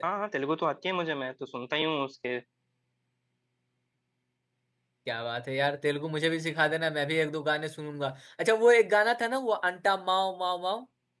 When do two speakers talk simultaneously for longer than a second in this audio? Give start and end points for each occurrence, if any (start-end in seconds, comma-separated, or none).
none